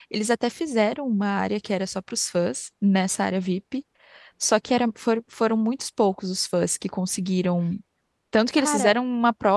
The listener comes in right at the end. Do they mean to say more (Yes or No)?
No